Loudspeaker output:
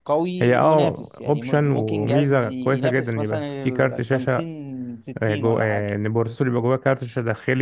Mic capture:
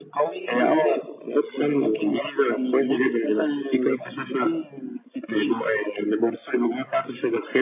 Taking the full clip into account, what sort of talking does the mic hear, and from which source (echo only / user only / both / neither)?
echo only